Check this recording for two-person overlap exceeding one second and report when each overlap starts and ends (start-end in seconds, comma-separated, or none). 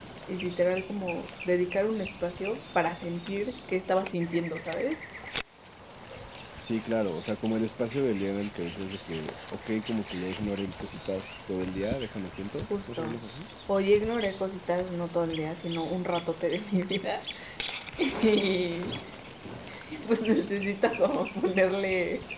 none